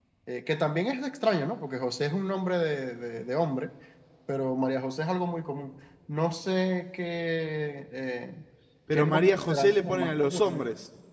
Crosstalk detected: Yes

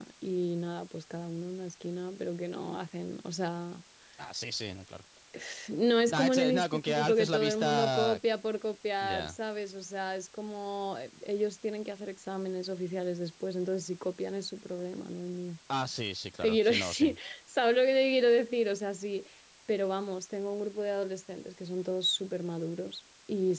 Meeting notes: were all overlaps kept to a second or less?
No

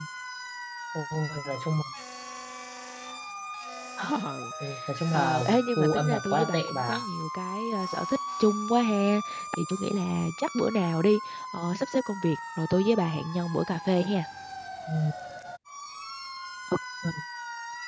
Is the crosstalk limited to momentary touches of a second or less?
No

